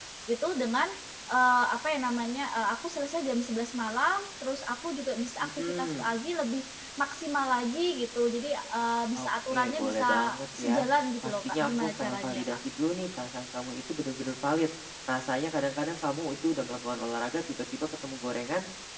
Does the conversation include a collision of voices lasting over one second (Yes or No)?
Yes